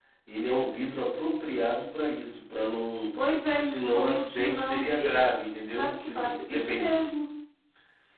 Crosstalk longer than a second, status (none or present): present